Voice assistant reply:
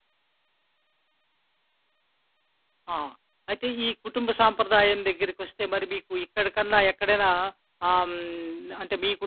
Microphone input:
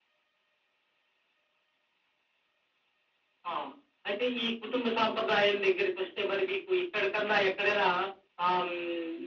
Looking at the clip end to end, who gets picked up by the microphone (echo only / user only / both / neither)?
echo only